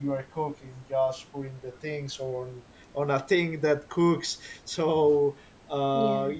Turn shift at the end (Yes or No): No